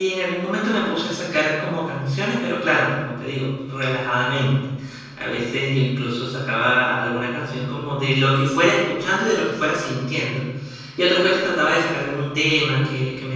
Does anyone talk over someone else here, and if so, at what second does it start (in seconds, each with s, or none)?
none